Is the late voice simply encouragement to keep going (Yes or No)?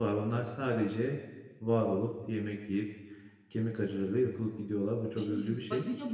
No